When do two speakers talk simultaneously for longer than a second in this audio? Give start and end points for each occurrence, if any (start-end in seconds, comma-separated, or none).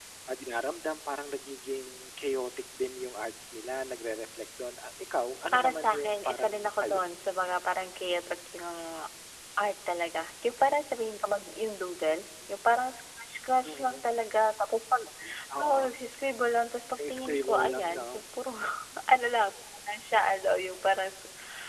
5.5-7.1, 17.0-18.2